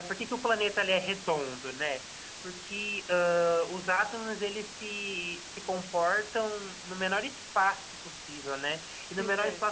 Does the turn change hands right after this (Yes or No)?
No